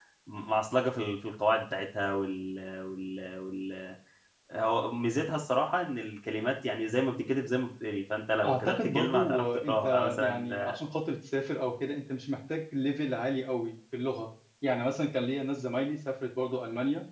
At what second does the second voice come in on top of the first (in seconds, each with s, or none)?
8.4 s